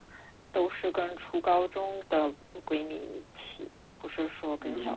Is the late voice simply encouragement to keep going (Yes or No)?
No